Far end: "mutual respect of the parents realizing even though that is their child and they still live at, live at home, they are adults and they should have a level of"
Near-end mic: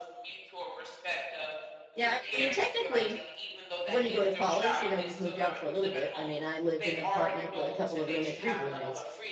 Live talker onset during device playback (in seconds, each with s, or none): 1.9 s